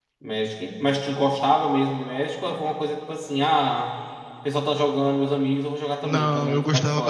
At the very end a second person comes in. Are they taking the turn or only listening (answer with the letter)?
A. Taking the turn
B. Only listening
A